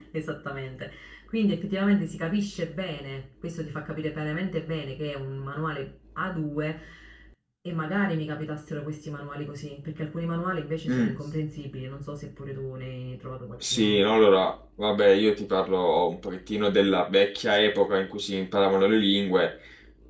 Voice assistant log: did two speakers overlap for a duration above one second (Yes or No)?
No